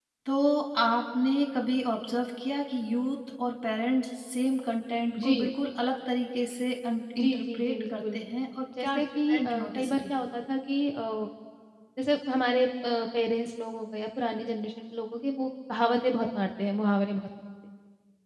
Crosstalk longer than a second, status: present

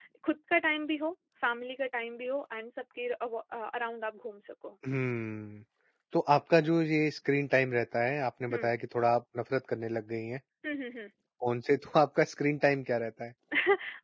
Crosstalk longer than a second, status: none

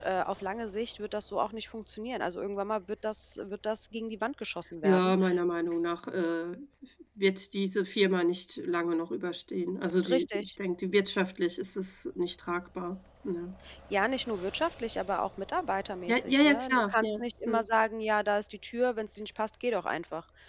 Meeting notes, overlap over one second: present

